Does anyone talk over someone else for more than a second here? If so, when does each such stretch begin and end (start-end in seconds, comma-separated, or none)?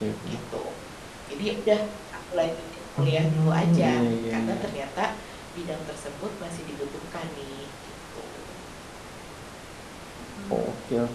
3.0-4.6